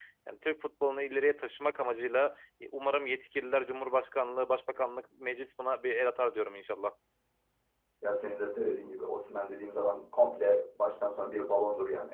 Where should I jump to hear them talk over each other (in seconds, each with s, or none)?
none